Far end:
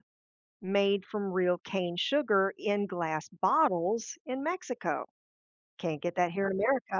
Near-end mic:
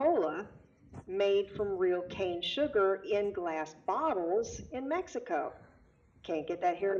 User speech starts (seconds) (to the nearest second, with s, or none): none